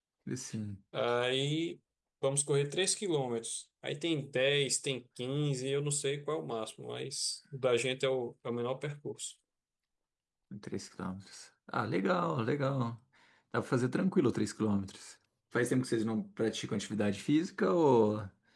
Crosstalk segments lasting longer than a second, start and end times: none

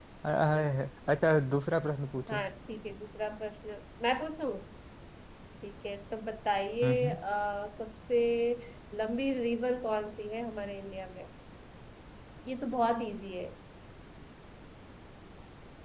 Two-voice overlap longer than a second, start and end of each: none

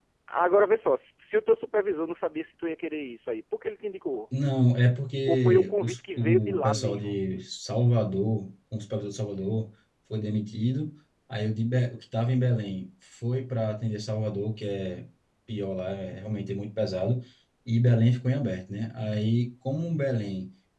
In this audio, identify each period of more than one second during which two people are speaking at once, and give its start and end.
5.3-7.2

